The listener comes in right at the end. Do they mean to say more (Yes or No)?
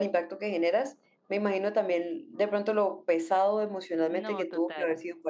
No